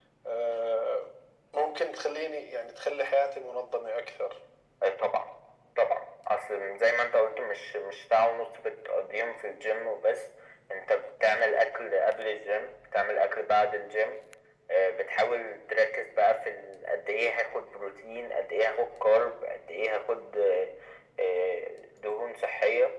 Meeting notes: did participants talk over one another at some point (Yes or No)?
No